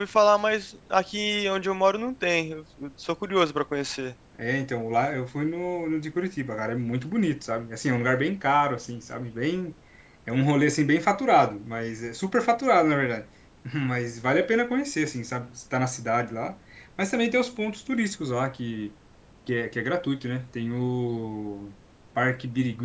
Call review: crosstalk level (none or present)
none